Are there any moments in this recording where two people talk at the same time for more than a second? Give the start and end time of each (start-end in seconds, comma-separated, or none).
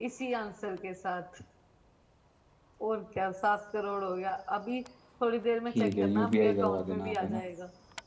5.8-7.4